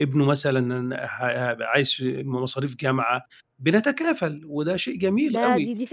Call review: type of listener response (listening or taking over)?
taking over